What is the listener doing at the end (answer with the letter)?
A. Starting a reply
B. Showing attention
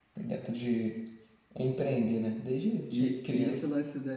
A